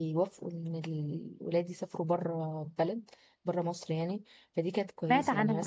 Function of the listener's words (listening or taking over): listening